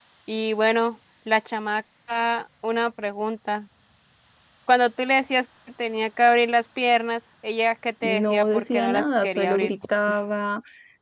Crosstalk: present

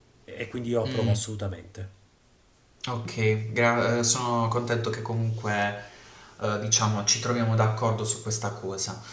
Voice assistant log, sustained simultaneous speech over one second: none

